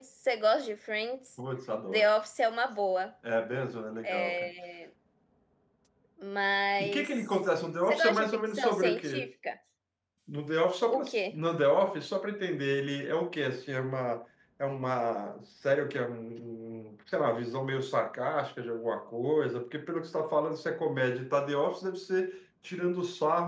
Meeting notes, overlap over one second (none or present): present